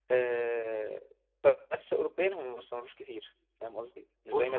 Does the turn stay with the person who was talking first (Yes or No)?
No